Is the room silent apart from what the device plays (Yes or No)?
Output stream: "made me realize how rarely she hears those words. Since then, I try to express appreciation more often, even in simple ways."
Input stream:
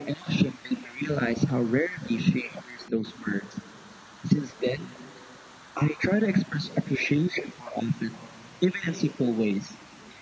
Yes